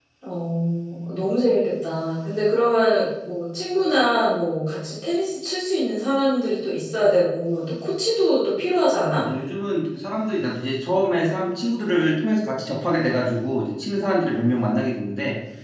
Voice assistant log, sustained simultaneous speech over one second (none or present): none